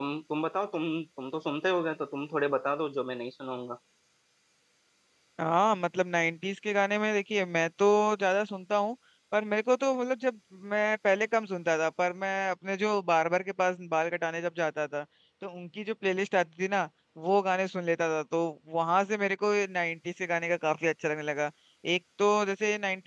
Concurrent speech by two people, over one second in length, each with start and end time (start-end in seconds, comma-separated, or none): none